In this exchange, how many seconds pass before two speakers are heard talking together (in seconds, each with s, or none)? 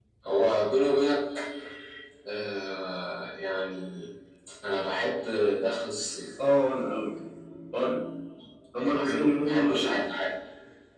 8.8 s